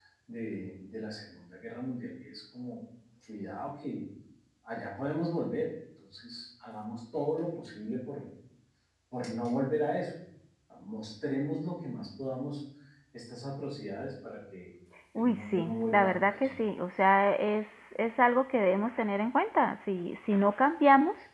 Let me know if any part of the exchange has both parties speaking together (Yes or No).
Yes